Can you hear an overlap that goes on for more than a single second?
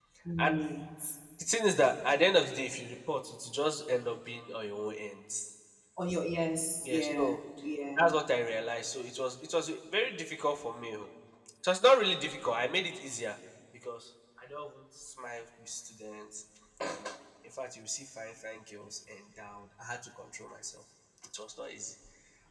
No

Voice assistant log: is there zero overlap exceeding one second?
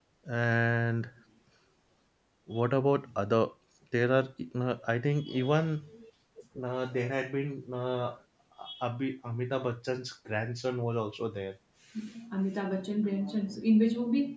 Yes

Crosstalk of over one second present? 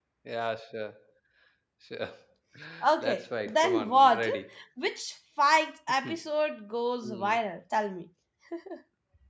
Yes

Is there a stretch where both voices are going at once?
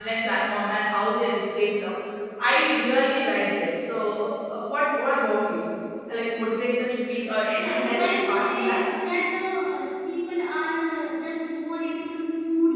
Yes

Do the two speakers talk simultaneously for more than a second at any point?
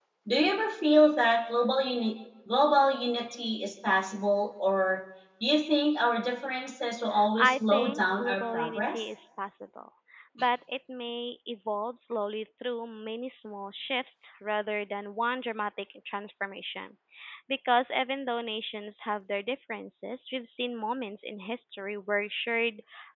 Yes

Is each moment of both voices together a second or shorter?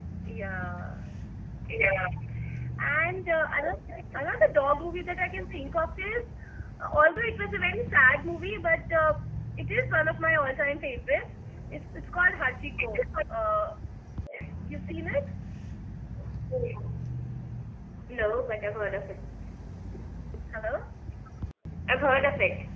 Yes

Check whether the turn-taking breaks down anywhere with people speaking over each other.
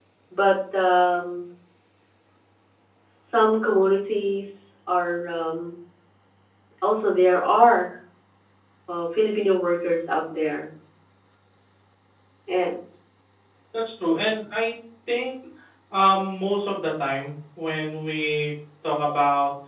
No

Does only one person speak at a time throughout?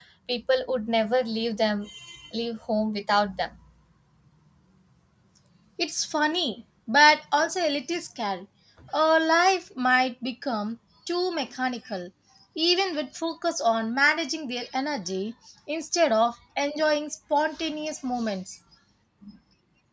Yes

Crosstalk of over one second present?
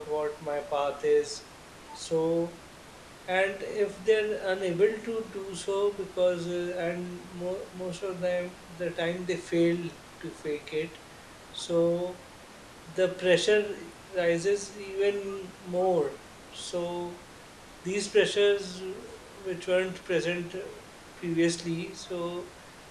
No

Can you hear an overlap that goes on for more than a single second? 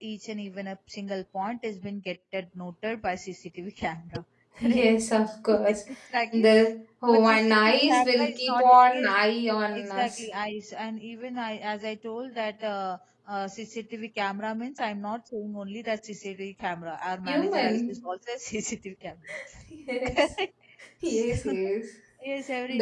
Yes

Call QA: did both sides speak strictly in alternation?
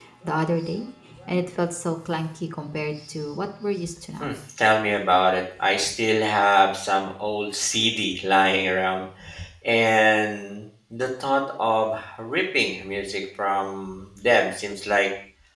Yes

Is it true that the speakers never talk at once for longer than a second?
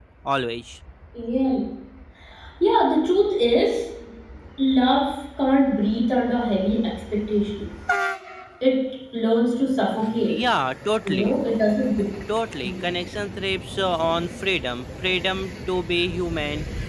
Yes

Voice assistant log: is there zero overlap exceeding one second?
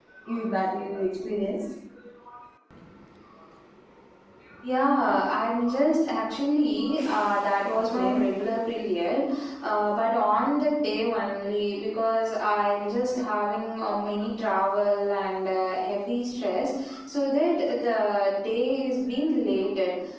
Yes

